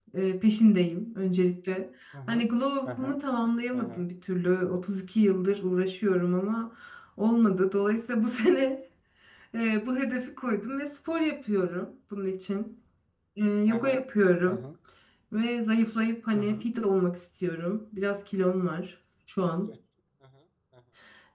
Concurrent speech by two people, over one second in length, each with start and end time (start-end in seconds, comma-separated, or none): none